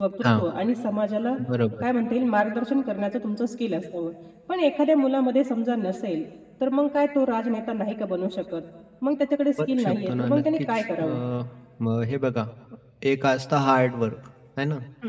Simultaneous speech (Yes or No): Yes